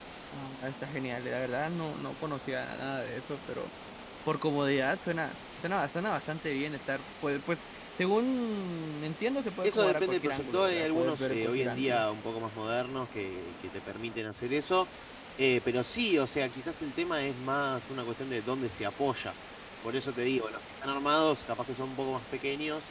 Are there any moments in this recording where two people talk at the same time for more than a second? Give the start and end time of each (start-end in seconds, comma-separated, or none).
9.6-12.0